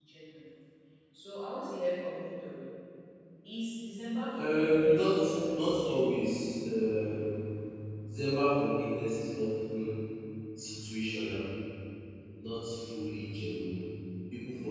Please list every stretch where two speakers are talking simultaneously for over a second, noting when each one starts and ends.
4.4-6.4

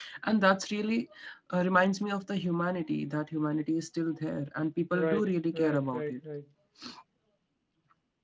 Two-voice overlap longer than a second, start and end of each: 4.9-6.1

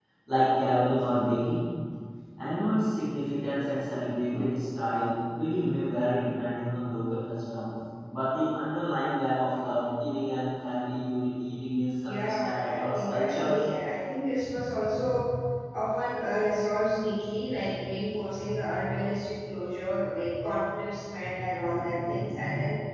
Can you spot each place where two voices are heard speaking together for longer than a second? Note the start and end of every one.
12.0-13.6

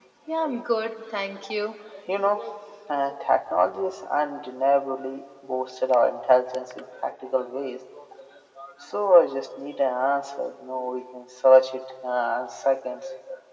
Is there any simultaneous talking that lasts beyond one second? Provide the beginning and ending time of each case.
none

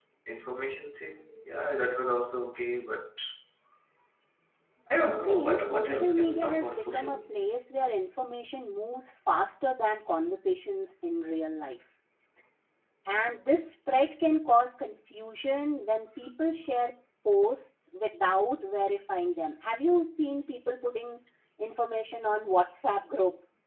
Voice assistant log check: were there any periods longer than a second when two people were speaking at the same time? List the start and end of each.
5.1-7.3

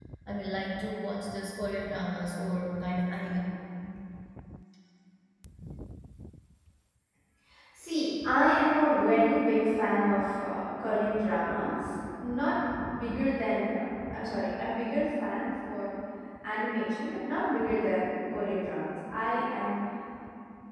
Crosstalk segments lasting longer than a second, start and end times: none

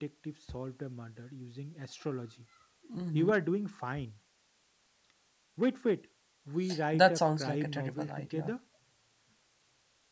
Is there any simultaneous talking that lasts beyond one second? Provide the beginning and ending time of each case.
6.9-8.5

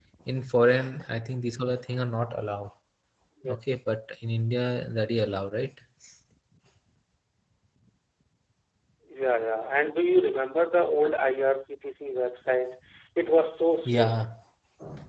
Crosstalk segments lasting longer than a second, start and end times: none

